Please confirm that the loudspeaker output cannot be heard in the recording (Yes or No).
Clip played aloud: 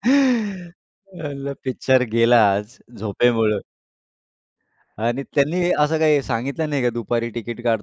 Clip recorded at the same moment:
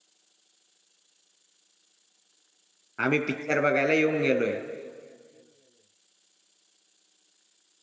Yes